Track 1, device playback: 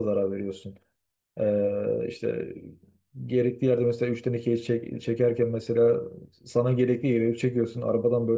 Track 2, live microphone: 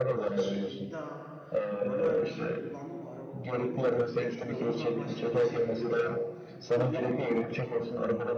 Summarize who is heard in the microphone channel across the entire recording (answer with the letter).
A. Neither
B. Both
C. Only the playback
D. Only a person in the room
B